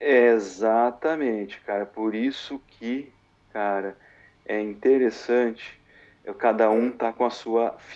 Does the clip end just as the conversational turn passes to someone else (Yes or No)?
No